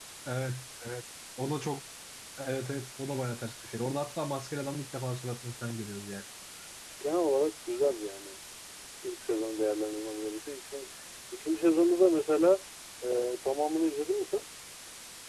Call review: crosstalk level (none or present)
none